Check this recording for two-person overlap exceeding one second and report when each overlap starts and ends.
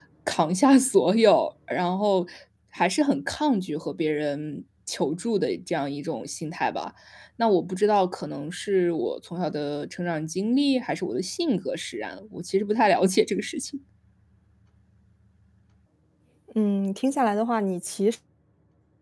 none

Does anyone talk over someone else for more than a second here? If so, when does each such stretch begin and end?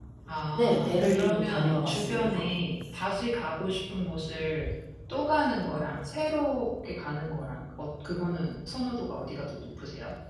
0.6-2.4

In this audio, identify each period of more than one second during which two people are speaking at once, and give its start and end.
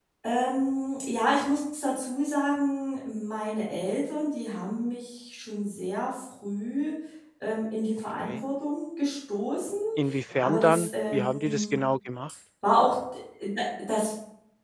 10.4-11.7

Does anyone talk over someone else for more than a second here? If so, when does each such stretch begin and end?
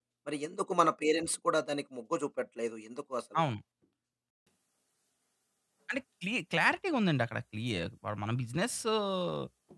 none

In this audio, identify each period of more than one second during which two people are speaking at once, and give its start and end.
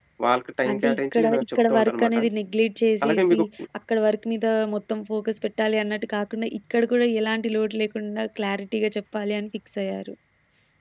0.7-2.2

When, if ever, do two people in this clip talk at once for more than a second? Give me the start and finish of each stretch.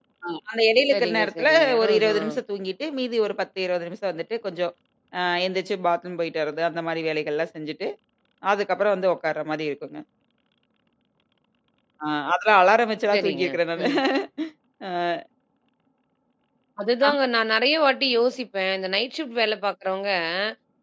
0.9-2.4

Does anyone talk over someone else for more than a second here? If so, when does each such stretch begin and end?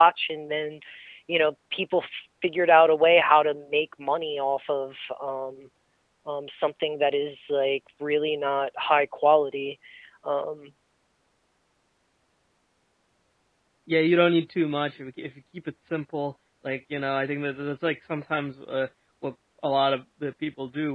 none

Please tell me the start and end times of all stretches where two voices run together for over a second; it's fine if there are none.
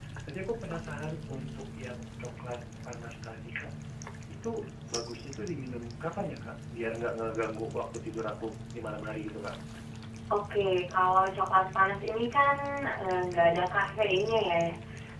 none

